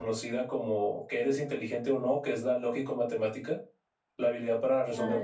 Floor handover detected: No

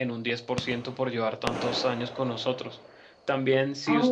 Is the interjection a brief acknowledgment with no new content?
Yes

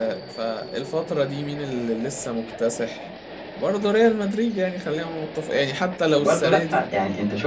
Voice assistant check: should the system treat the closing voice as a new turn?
Yes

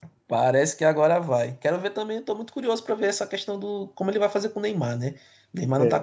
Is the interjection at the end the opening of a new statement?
No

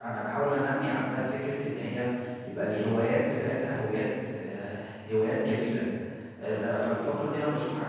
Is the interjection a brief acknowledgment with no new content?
Yes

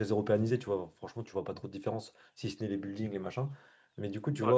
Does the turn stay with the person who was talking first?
Yes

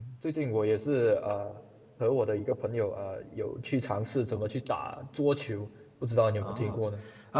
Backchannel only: No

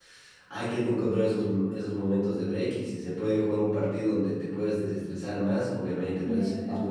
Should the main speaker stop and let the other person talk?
No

